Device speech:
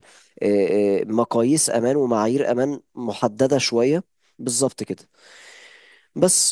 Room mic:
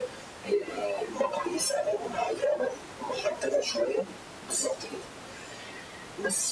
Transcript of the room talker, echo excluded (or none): none